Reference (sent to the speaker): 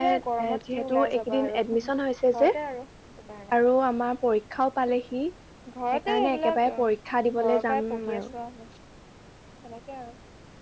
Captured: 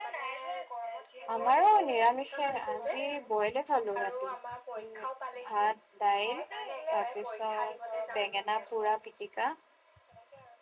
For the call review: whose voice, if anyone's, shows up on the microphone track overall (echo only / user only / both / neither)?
both